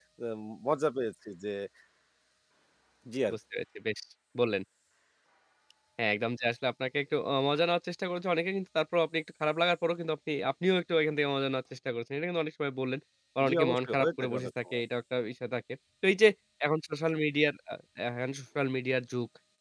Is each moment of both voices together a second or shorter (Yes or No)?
No